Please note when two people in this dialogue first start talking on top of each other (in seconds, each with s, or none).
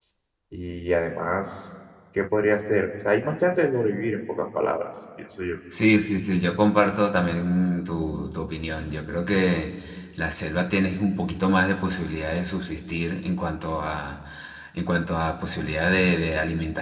none